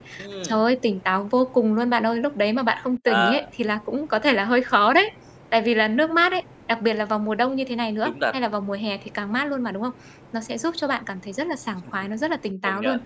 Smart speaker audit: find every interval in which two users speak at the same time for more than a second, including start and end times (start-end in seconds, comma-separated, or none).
none